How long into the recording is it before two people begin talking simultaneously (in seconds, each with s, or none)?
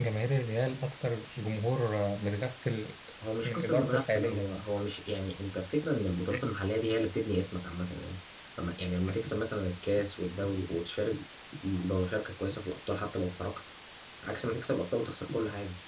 3.4 s